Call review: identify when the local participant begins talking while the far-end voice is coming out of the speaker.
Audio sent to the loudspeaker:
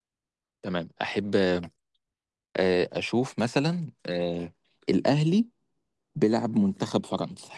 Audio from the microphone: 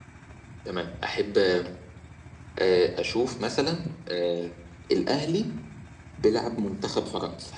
none

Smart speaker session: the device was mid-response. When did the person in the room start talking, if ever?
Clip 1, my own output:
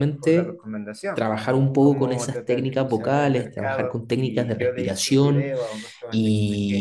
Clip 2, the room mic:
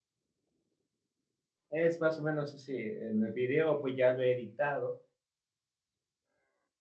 1.7 s

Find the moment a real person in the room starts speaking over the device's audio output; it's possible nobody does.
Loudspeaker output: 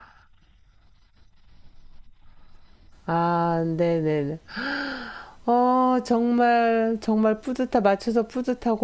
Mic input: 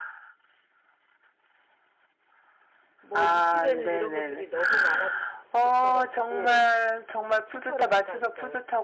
3.0 s

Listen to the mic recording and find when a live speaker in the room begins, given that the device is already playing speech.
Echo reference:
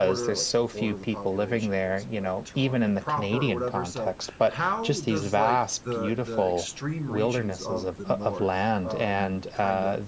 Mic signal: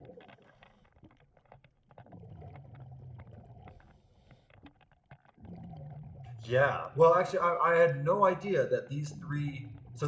6.4 s

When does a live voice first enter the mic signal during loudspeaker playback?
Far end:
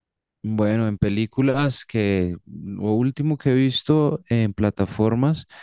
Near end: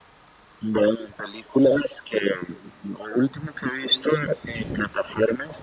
none

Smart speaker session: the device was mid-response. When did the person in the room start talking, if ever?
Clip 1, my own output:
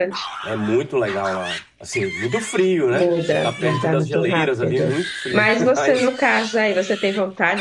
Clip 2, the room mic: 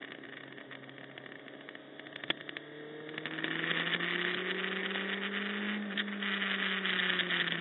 none

